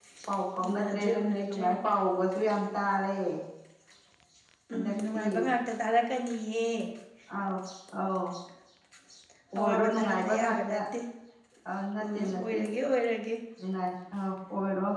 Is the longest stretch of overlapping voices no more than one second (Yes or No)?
No